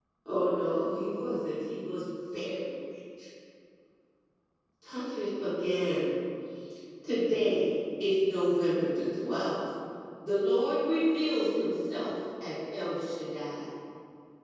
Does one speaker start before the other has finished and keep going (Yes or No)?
No